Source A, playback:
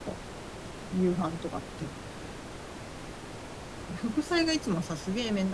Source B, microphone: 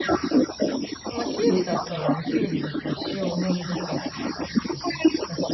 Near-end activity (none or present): present